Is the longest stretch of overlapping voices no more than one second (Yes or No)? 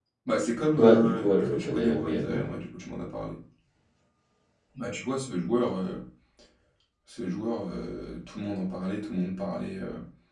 No